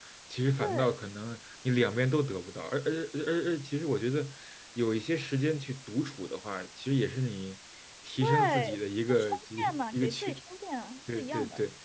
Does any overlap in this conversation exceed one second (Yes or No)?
Yes